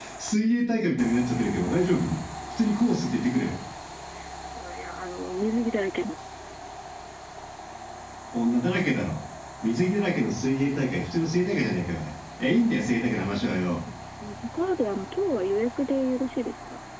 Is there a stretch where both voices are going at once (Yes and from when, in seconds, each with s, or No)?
No